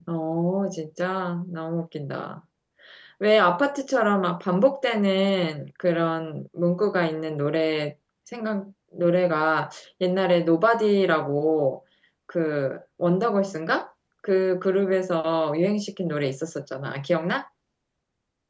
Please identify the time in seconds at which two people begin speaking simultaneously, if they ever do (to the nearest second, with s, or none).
none